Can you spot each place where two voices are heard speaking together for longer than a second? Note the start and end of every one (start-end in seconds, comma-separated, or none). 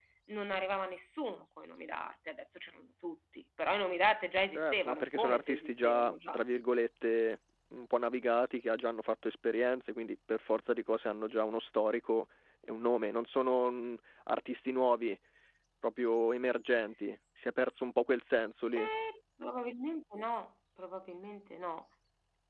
4.5-6.4